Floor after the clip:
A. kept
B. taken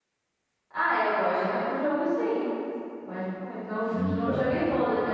A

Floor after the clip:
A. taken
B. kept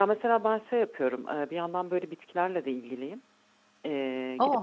B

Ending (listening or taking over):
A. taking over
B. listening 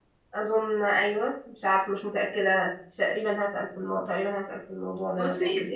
A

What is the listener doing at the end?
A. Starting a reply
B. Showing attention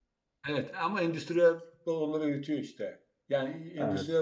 B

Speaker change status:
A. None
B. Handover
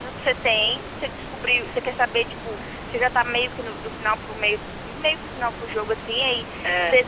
A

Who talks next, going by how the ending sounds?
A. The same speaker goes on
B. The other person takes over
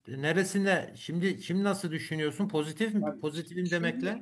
B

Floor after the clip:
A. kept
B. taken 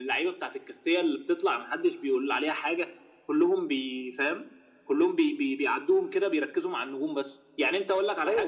B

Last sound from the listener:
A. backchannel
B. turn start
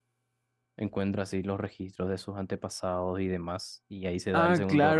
B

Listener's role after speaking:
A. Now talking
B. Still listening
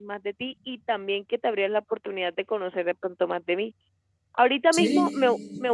B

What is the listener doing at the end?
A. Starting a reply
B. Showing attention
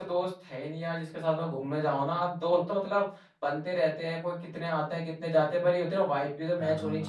A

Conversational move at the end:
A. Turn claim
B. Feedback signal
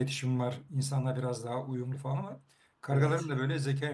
B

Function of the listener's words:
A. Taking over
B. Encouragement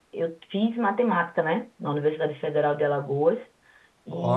B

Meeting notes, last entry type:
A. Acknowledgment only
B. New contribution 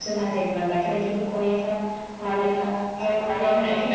A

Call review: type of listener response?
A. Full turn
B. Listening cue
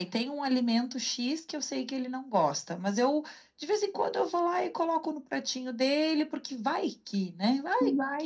A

